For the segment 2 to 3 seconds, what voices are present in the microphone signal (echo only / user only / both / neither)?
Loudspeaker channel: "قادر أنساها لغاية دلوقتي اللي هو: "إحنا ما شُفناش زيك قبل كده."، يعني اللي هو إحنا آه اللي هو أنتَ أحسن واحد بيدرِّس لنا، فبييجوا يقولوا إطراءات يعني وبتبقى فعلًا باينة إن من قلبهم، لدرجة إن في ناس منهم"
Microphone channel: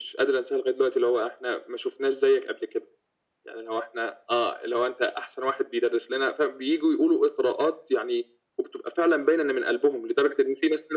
echo only